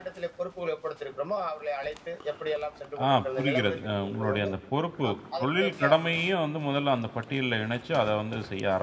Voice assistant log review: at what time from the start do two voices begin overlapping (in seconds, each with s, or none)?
3.1 s